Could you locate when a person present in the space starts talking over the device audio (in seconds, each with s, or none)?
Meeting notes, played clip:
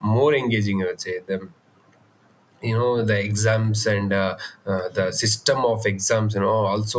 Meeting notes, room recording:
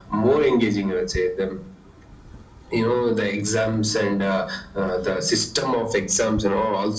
none